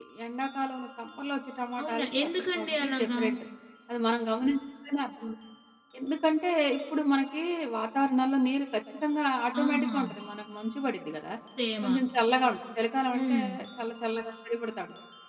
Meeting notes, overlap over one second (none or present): present